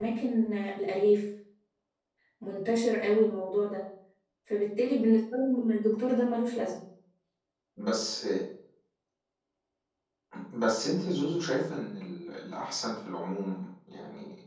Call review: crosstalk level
none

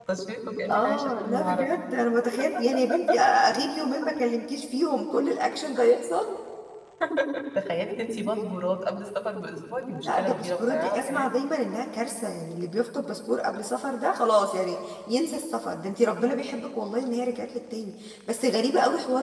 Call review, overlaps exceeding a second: present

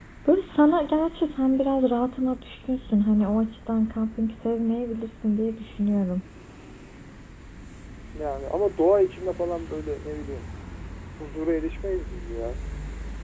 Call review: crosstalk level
none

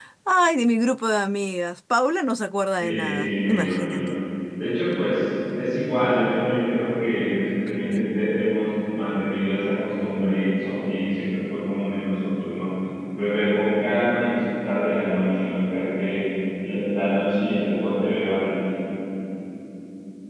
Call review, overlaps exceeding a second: present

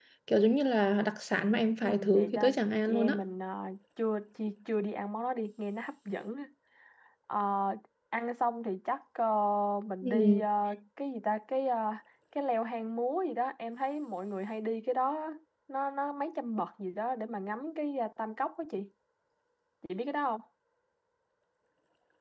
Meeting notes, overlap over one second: present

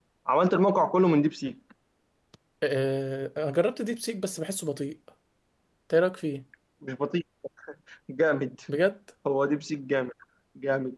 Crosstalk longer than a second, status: none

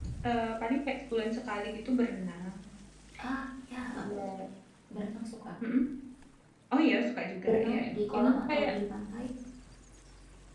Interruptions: present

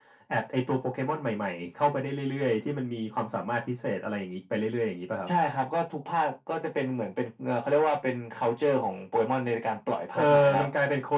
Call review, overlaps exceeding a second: none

